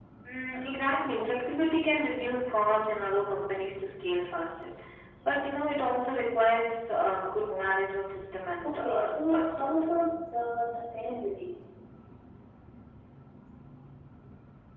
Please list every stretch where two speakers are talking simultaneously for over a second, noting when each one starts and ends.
8.6-10.0

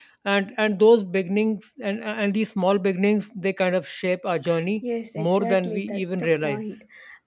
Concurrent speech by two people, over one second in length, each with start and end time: 5.3-6.6

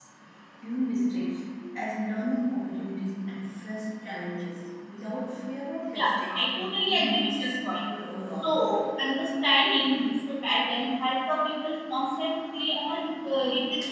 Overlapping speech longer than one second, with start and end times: 6.0-7.8

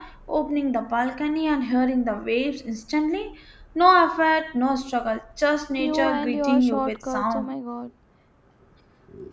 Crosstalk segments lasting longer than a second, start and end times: 5.8-7.5

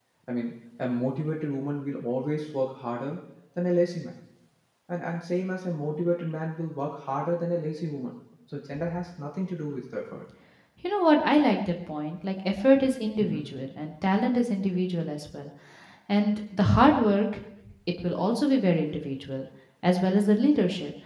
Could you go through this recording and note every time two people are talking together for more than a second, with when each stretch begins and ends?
none

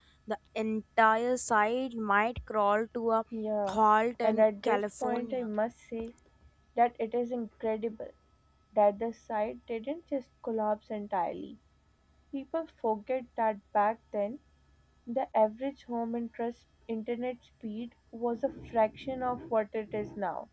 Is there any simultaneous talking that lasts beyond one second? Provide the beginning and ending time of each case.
4.2-5.5

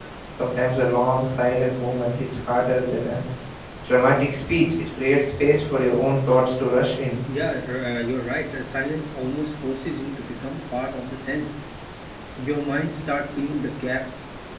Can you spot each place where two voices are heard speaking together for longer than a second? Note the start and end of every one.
none

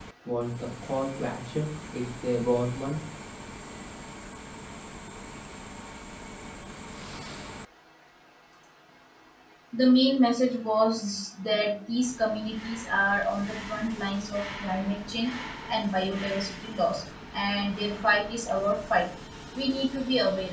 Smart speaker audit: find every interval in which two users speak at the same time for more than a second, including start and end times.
none

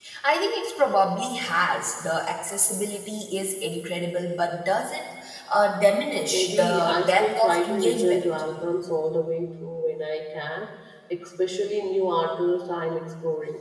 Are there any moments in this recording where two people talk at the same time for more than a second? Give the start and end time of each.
6.3-8.2

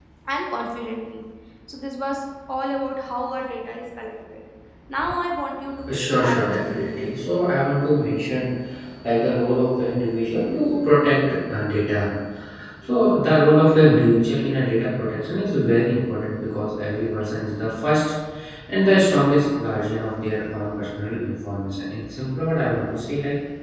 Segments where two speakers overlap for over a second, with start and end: 5.9-7.1

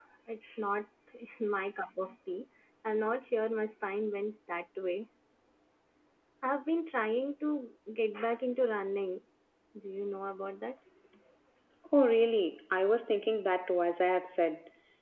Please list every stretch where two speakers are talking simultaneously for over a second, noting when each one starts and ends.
none

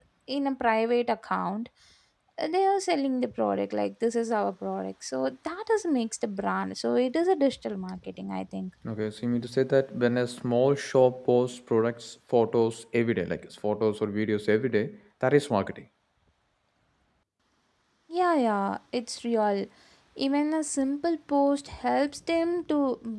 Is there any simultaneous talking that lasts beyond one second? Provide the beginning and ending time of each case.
none

